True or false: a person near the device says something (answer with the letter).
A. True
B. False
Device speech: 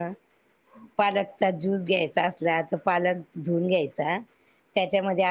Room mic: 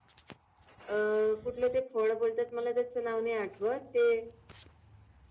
A